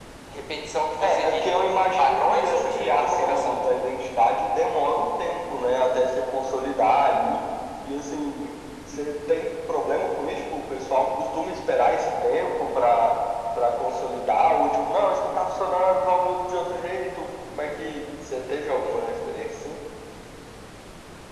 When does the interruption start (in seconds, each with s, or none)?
1.0 s